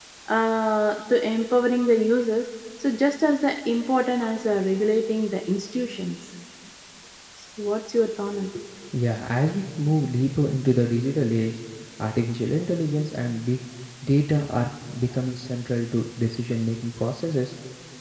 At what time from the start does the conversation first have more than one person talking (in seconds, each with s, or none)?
none